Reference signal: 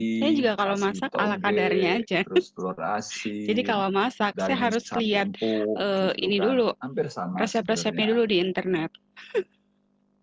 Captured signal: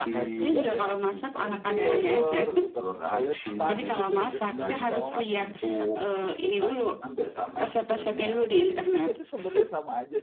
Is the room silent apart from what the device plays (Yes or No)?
No